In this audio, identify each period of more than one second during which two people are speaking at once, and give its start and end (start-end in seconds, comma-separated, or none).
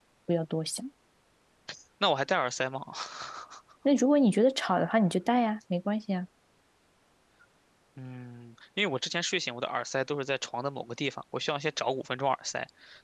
none